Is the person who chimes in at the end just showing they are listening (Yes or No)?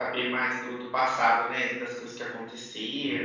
Yes